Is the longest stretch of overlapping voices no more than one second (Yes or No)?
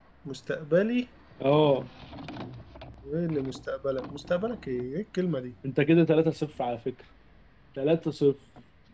Yes